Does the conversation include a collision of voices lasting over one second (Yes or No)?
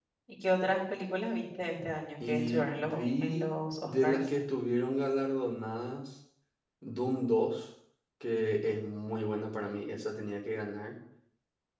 Yes